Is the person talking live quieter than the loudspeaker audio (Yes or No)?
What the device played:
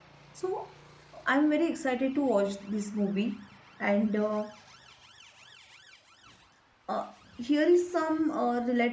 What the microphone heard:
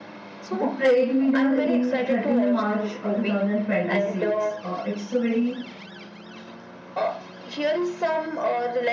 No